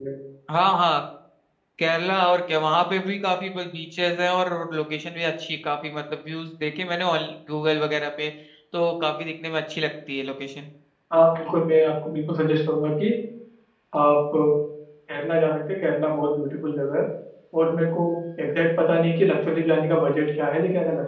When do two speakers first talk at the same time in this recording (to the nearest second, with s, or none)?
none